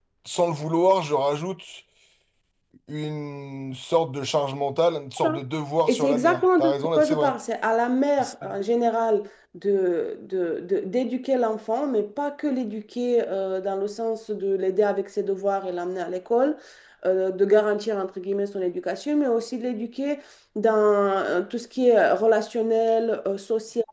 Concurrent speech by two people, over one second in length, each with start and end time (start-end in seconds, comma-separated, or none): 5.9-7.3